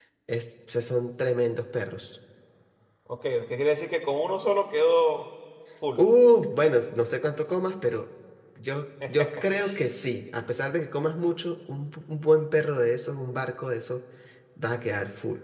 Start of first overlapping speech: none

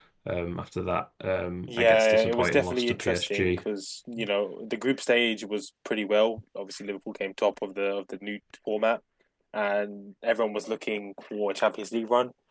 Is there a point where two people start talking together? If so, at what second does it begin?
1.7 s

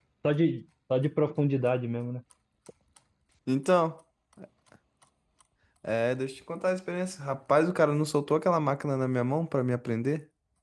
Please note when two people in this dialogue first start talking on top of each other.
none

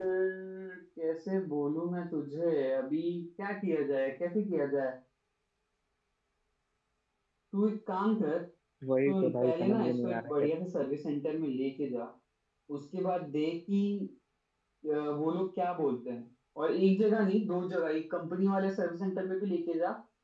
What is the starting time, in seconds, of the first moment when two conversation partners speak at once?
8.8 s

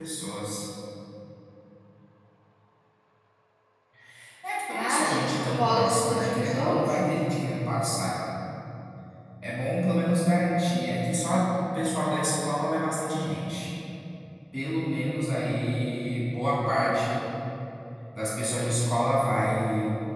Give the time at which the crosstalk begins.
4.7 s

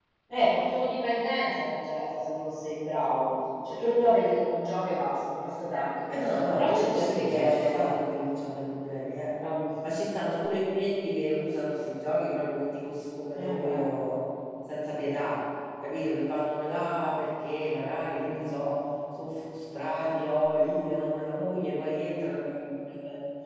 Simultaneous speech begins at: 6.5 s

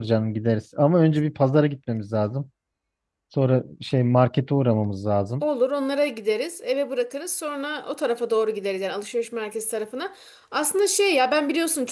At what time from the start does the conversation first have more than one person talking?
none

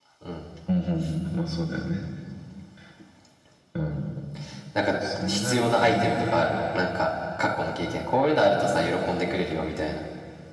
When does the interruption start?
5.2 s

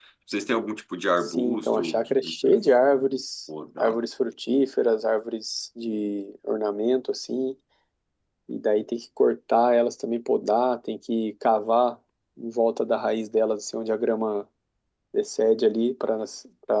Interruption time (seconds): 1.3 s

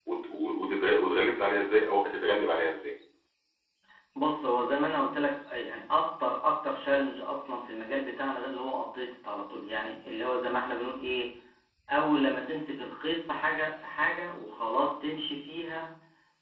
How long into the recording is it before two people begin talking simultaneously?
none

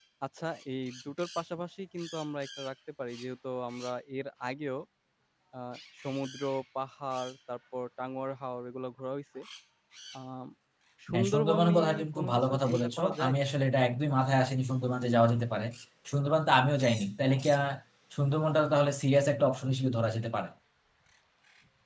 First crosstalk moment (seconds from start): 11.1 s

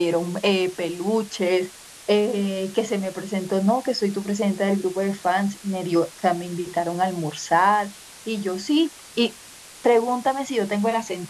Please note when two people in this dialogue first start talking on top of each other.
none

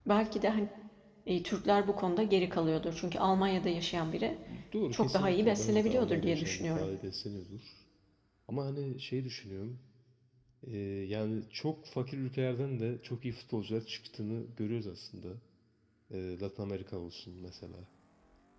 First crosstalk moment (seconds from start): 4.9 s

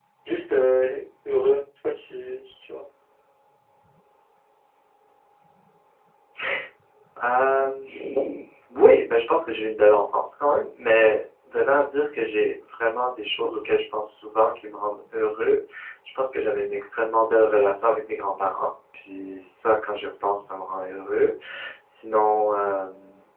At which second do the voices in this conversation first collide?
none

